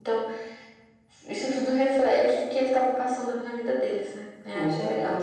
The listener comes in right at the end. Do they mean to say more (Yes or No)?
Yes